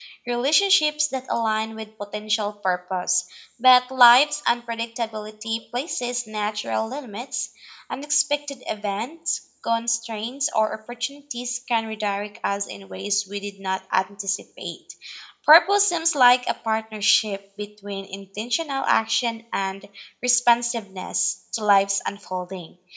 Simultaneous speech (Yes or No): No